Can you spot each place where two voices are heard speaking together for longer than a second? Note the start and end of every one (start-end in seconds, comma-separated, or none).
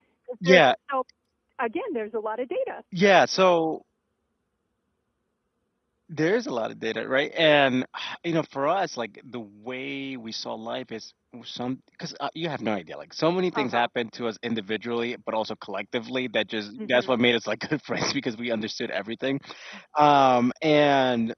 none